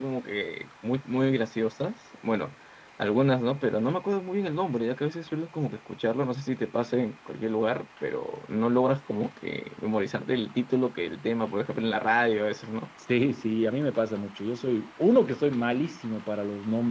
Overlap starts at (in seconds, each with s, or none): none